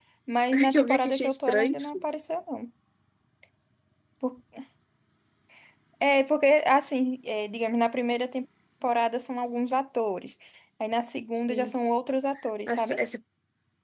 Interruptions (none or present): present